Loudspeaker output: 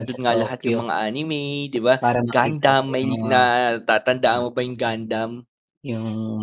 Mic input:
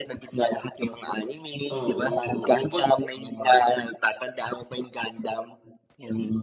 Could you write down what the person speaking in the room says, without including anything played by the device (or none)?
Oo, oo pag